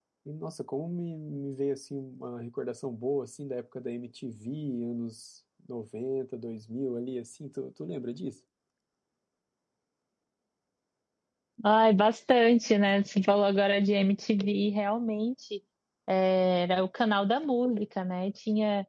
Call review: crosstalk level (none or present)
none